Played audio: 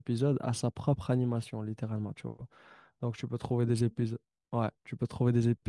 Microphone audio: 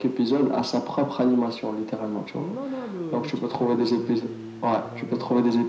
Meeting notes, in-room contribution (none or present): present